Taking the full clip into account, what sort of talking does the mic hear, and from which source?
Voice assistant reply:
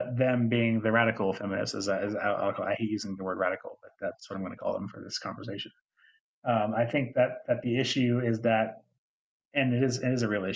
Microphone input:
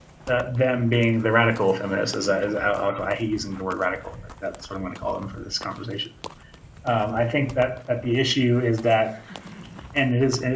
echo only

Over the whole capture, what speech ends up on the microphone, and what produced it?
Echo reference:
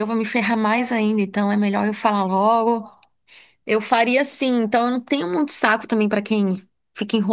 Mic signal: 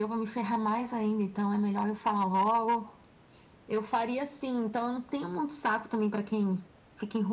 echo only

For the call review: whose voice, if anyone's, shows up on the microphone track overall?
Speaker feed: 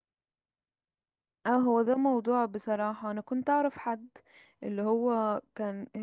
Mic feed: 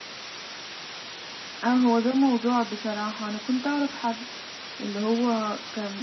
echo only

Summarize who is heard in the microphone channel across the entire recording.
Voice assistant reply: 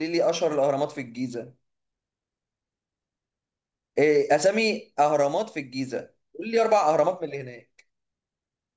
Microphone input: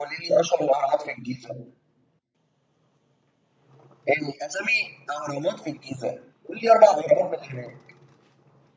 echo only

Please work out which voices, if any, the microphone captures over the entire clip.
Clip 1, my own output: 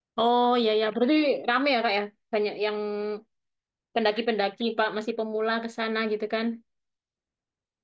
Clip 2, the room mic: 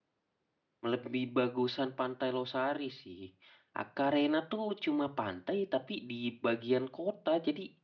user only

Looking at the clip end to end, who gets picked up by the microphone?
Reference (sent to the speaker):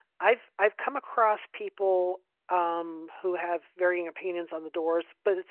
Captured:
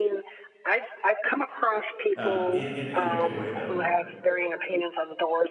both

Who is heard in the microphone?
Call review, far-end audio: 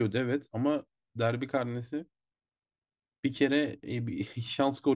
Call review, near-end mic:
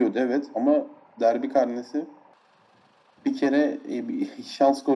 echo only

